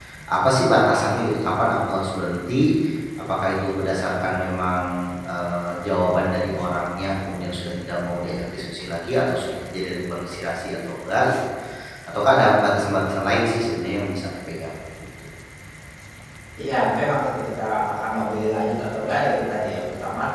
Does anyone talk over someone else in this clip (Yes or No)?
No